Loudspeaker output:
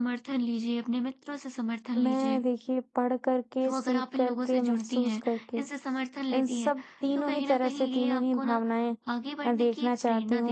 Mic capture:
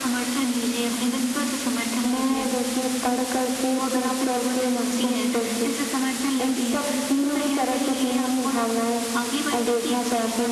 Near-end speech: none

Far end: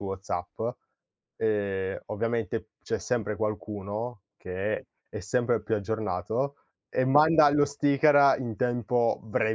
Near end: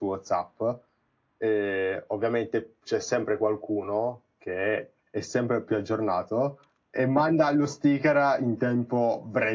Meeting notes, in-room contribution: none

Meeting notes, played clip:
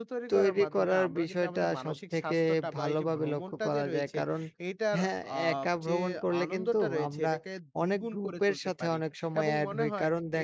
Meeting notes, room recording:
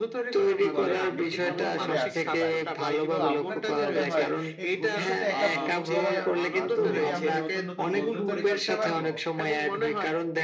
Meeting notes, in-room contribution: present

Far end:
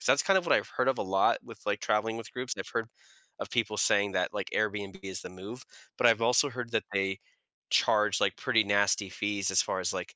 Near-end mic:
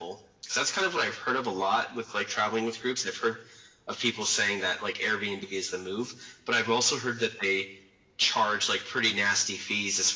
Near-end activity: none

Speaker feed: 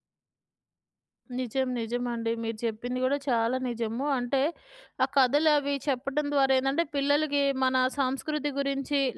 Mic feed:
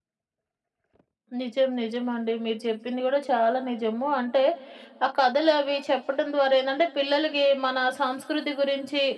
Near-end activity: none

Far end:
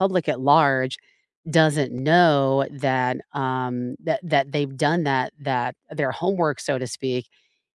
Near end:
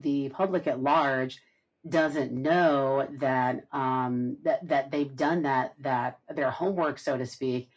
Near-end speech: none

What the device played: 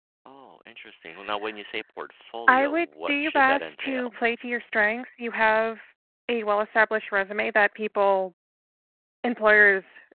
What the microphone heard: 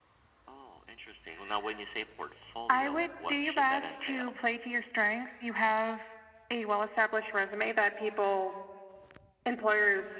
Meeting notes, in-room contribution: none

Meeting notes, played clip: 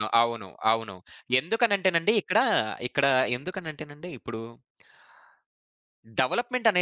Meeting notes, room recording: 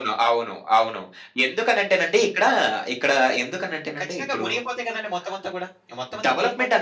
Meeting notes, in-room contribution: present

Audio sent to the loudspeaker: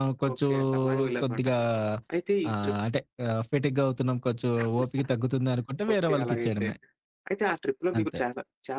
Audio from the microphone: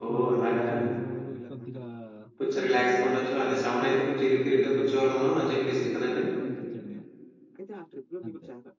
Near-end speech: present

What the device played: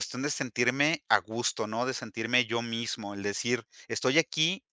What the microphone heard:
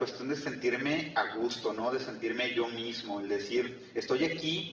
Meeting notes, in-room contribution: none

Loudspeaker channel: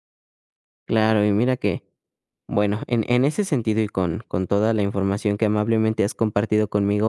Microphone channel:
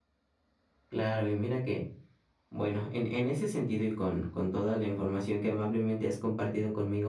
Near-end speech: none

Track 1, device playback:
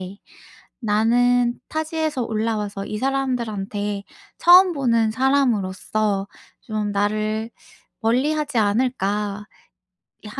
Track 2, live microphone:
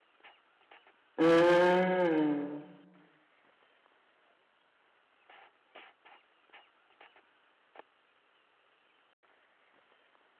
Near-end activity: present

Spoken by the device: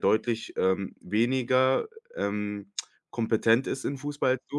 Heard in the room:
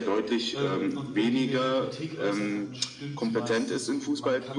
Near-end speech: present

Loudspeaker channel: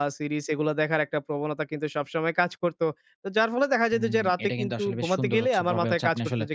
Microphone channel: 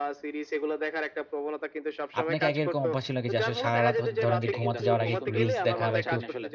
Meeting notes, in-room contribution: present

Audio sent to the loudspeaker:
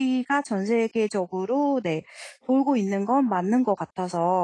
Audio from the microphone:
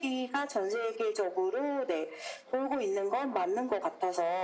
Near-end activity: none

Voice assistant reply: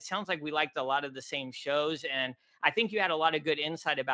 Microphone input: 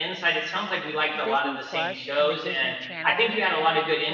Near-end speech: present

